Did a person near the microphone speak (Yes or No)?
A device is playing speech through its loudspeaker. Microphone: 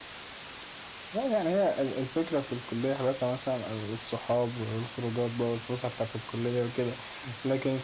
Yes